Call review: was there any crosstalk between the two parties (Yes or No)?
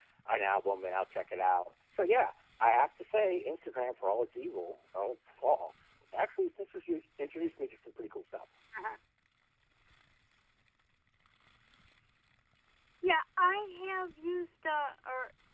No